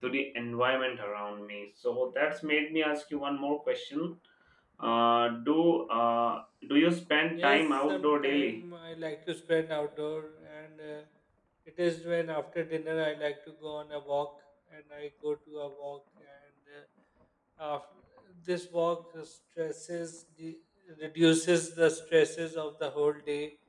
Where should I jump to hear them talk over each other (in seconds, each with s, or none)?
7.4 s